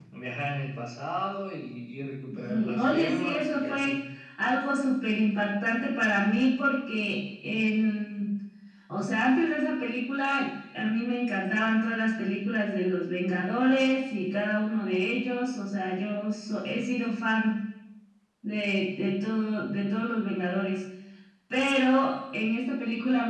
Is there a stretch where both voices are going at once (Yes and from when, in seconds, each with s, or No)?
Yes, from 2.3 s